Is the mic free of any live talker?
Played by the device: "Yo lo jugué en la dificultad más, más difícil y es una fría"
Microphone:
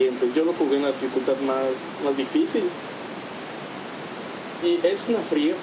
Yes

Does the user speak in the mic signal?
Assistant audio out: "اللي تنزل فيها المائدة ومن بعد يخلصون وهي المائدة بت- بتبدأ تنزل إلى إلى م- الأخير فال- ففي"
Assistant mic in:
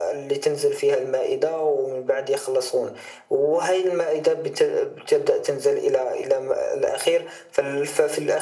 No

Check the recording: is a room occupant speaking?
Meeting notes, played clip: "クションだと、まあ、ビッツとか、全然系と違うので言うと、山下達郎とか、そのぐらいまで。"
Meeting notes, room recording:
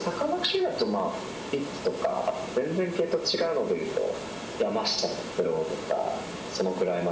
No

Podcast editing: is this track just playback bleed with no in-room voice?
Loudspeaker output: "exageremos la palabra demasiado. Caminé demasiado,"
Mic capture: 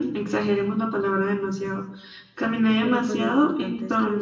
No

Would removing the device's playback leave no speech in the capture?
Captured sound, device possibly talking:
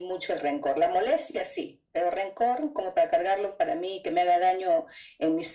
Yes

